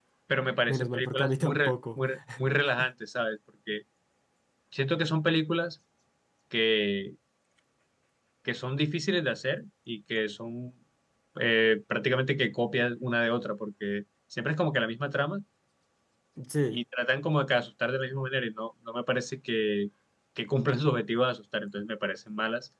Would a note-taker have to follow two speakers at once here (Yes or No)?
Yes